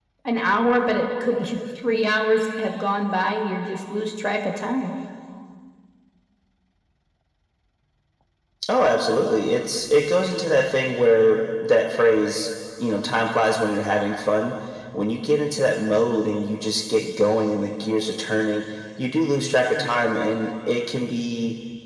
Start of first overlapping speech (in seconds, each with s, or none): none